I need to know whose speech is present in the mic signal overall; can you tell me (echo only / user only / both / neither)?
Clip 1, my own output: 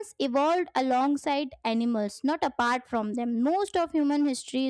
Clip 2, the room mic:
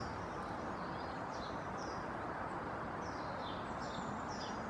neither